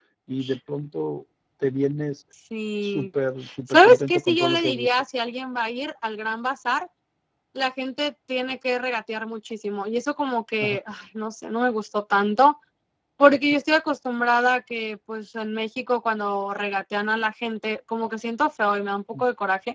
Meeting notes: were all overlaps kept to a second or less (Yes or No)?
No